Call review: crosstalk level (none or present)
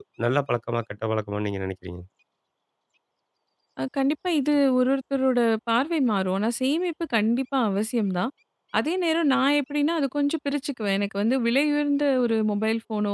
none